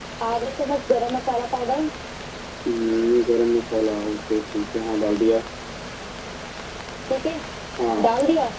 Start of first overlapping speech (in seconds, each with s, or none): none